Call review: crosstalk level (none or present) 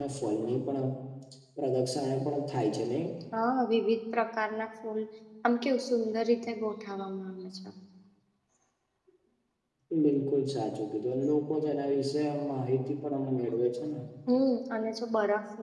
none